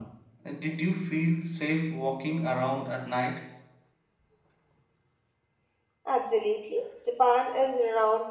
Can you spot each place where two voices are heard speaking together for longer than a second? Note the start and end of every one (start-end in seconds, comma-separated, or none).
none